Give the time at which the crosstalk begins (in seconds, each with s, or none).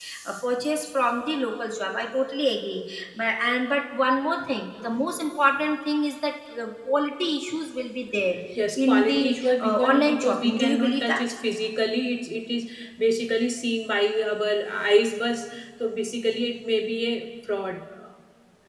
8.8 s